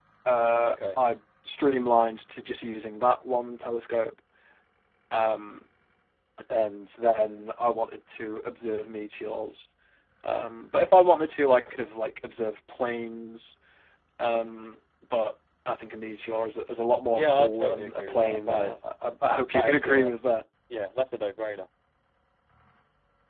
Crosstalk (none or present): present